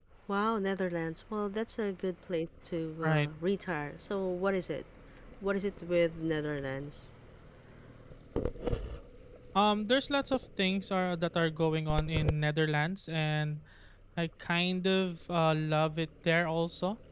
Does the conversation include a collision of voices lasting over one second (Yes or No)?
No